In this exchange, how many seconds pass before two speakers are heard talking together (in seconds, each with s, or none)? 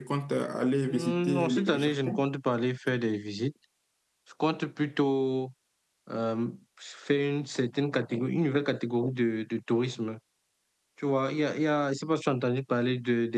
0.9 s